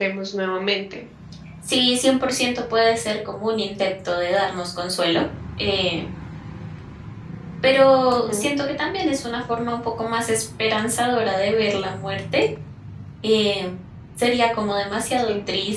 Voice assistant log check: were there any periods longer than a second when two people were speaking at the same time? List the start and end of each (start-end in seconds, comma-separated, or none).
none